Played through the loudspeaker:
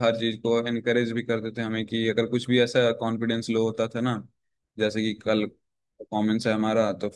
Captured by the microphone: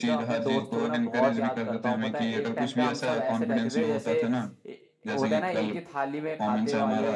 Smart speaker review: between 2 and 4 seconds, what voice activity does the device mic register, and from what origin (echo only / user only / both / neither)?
both